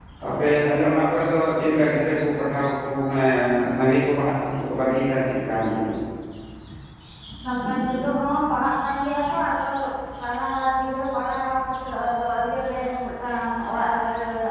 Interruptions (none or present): none